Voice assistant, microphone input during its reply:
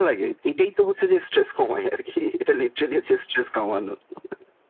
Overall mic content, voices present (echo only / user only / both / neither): echo only